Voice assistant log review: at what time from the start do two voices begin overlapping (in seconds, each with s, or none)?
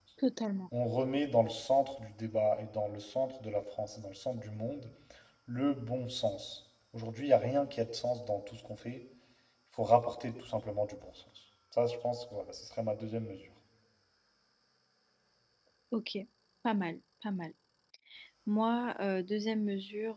none